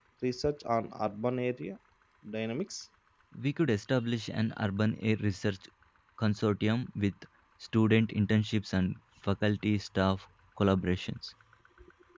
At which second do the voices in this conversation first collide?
none

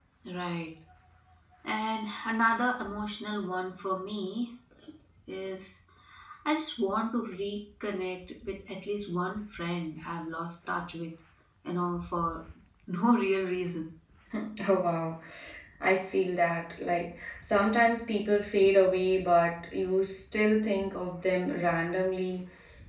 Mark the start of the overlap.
none

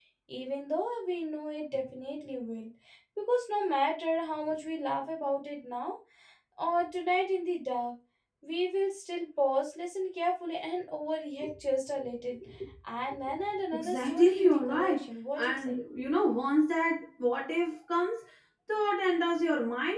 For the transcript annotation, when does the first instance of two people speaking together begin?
13.8 s

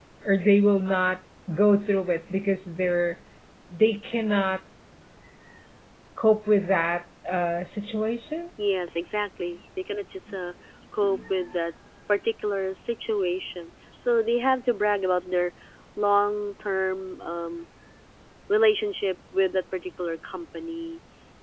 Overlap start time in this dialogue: none

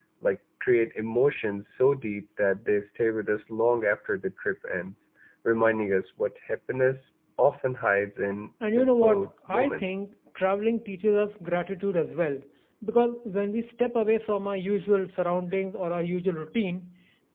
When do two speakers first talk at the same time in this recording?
8.6 s

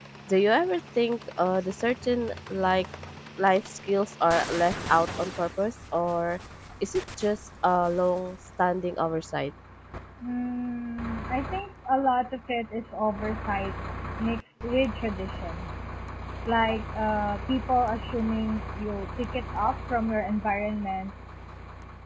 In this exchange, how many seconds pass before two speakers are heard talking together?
none

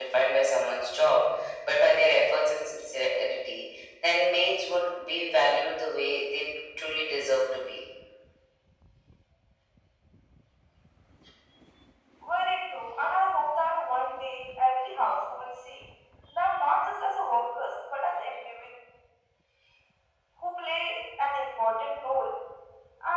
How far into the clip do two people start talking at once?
none

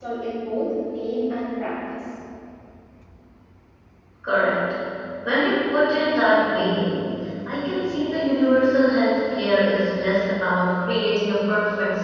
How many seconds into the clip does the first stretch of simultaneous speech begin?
none

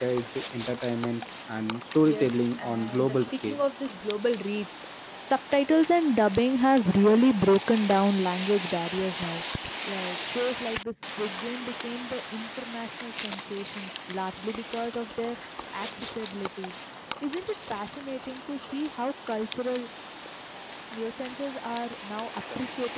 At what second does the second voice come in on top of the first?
2.0 s

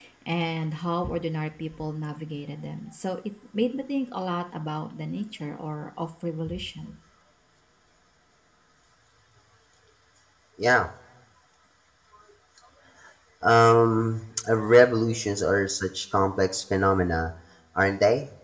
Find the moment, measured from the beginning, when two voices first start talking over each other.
none

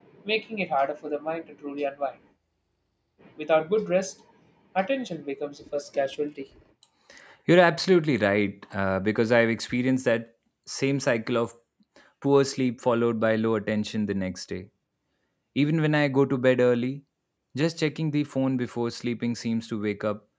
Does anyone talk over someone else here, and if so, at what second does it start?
none

